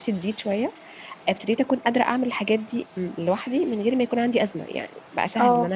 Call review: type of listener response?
listening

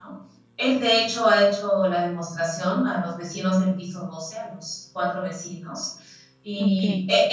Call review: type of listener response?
listening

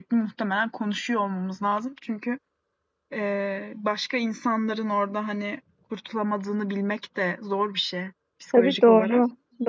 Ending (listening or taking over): taking over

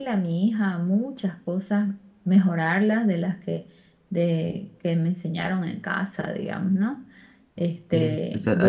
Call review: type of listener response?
taking over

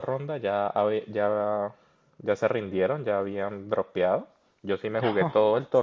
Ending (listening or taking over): listening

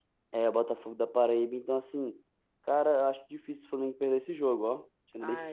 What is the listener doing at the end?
taking over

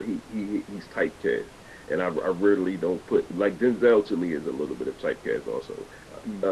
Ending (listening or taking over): listening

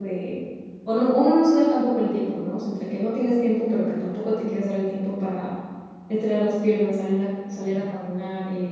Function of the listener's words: listening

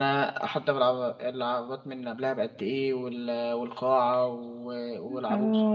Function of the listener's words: taking over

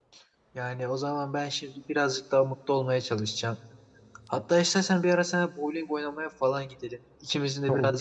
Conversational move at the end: listening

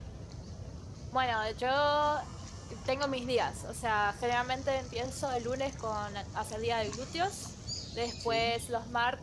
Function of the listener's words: listening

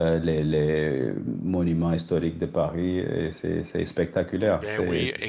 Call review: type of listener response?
taking over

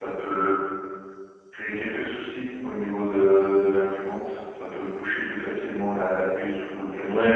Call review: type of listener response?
taking over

